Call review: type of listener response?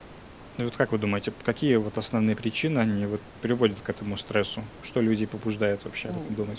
taking over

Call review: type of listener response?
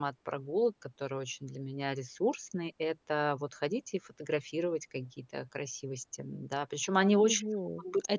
taking over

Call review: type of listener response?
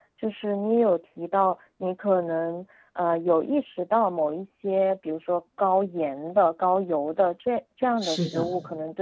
listening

